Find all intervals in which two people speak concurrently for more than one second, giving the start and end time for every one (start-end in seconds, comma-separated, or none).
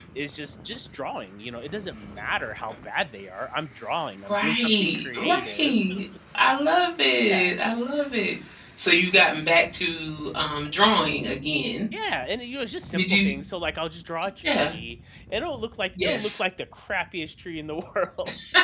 4.3-5.7